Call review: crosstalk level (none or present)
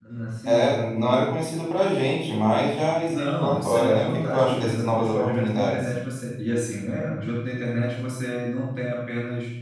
present